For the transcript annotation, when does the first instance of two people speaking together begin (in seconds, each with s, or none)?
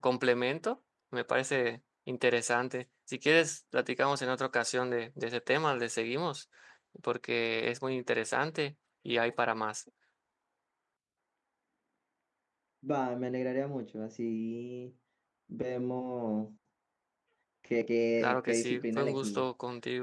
18.2 s